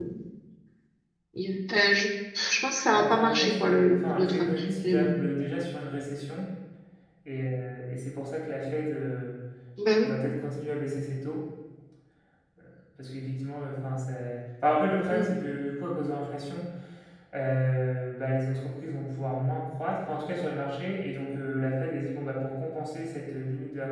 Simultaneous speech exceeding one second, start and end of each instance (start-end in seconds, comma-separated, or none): 2.9-5.1